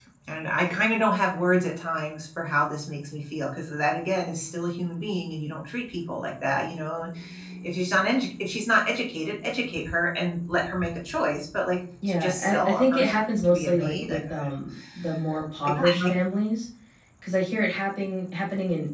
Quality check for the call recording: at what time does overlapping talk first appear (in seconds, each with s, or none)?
12.1 s